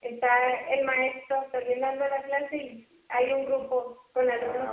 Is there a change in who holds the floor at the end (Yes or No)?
No